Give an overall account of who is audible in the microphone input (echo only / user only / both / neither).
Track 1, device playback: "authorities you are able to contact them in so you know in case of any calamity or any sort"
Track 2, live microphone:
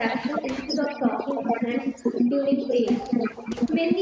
both